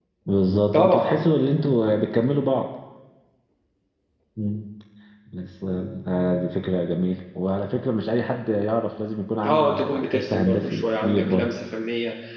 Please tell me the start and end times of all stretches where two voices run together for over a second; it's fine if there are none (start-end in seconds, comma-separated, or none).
9.4-11.5